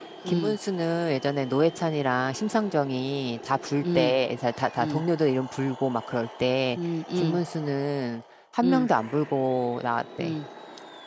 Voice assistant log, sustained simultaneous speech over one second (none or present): none